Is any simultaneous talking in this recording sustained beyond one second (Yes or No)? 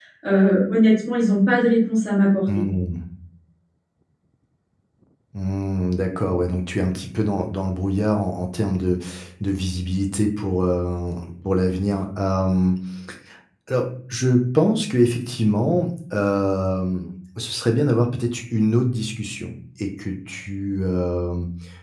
No